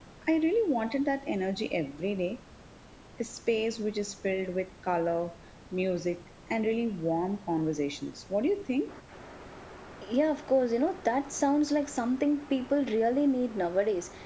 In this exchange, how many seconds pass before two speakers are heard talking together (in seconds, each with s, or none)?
none